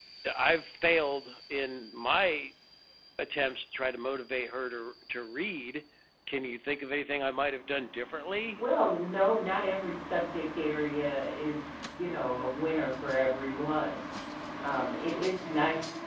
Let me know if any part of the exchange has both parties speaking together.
No

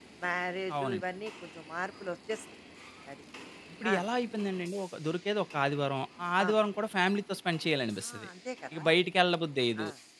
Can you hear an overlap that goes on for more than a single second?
No

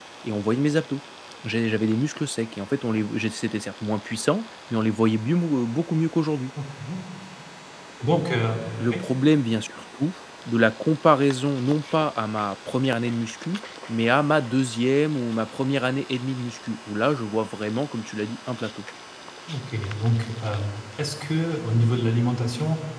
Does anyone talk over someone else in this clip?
No

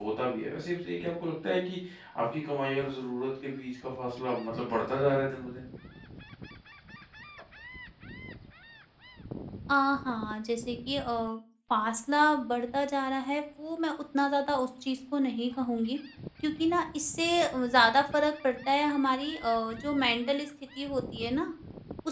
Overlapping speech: No

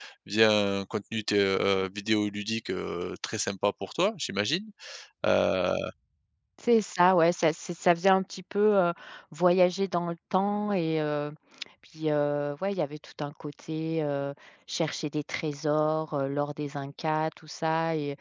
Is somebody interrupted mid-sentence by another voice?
No

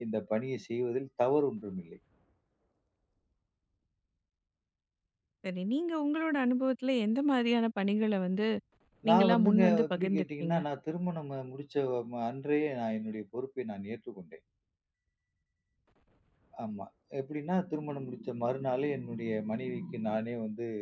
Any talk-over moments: Yes, from 9.1 s

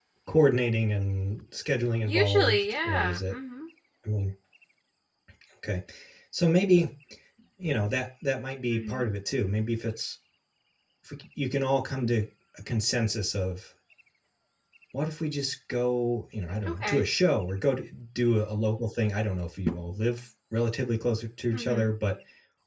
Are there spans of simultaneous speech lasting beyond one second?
Yes, from 2.0 s

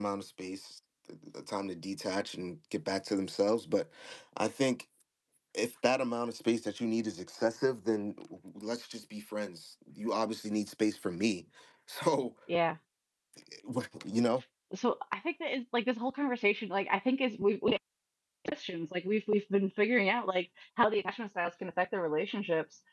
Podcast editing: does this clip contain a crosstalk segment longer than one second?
No

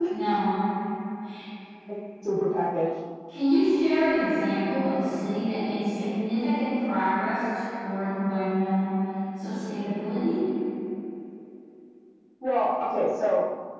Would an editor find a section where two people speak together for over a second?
No

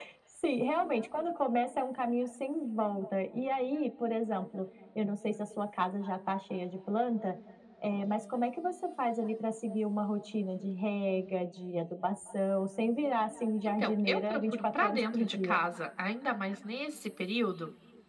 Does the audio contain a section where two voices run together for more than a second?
Yes, from 13.6 s

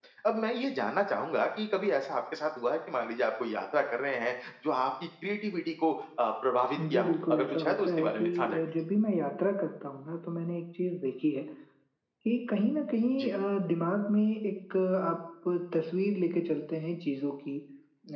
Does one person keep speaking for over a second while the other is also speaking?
Yes, from 6.8 s

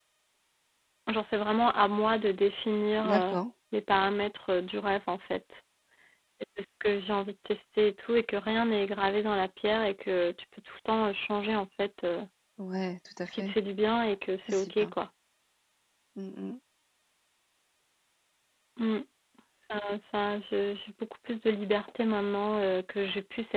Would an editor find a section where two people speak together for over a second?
No

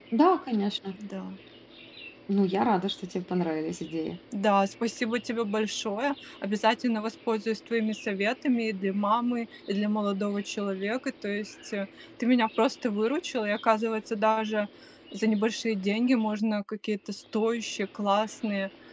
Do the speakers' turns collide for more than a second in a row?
No

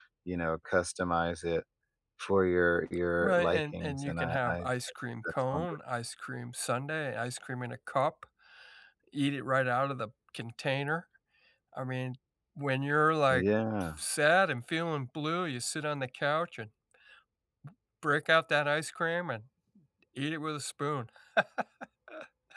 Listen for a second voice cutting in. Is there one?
Yes, from 3.2 s

